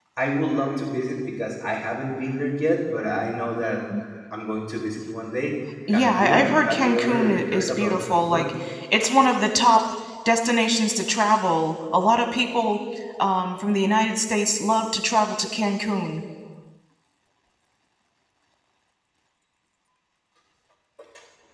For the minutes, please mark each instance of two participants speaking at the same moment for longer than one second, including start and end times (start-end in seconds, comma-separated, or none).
5.9-8.5